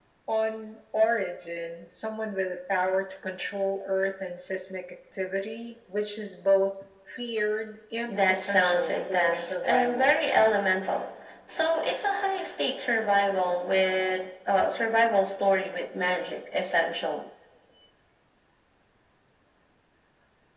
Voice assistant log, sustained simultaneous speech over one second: present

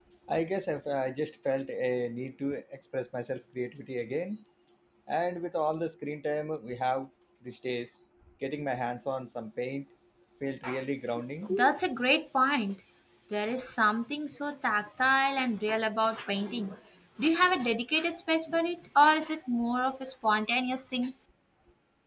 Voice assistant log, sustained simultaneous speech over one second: none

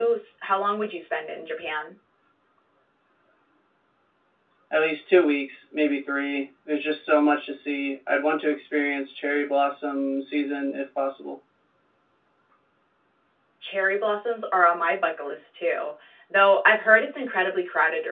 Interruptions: none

